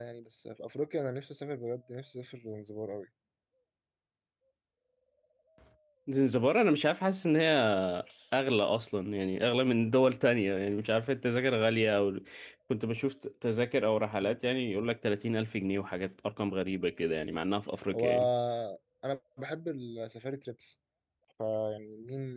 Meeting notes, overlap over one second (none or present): none